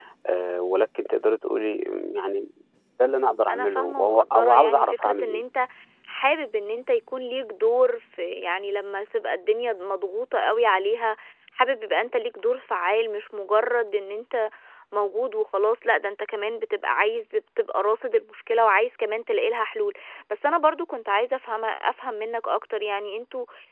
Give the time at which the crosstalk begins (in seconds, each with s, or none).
3.5 s